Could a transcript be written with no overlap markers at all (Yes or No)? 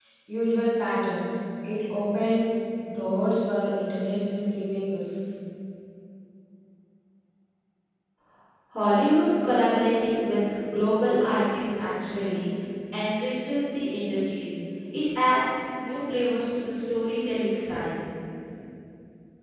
Yes